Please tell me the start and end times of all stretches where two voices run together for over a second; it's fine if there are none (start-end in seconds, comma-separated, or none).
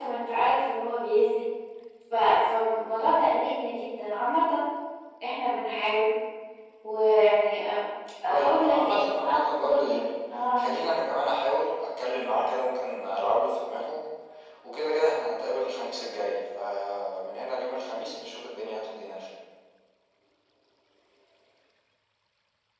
8.3-10.0